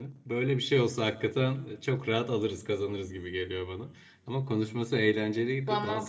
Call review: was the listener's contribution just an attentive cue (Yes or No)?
Yes